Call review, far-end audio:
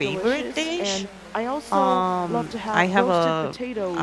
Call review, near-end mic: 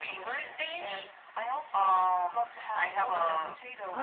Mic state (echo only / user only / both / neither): both